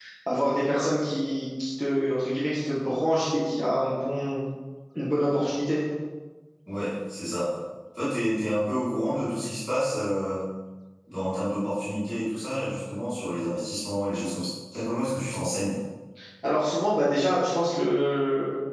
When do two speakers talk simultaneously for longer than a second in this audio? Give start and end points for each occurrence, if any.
none

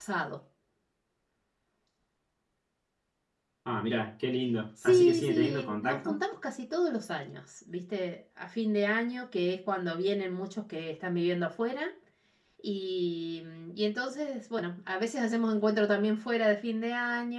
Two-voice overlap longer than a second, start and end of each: 4.8-6.2

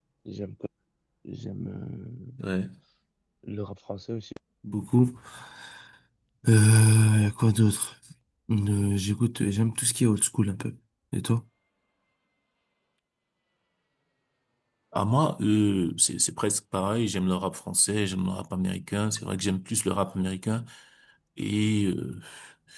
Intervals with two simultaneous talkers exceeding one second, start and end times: none

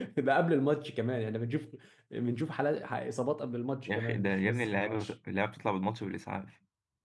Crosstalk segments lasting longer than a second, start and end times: 3.9-5.1

